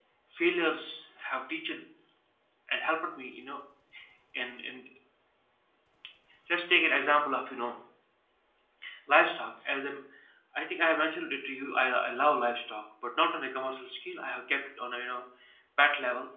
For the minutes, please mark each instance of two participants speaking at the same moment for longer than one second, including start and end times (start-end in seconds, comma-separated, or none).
none